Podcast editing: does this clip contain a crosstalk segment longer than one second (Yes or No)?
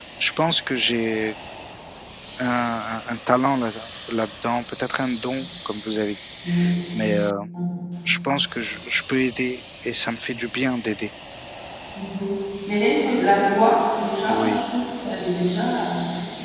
No